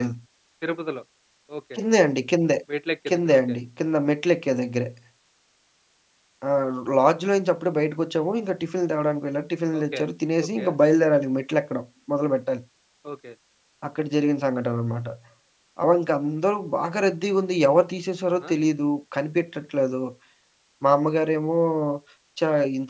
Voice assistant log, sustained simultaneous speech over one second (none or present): none